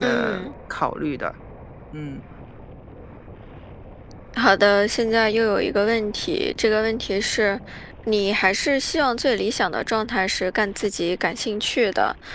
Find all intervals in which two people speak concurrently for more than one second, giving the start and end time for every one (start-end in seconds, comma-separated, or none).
none